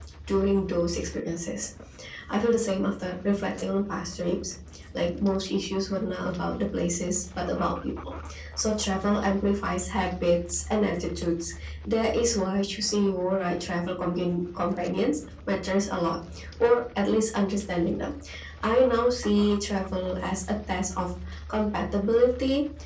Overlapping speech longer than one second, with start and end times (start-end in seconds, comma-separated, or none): none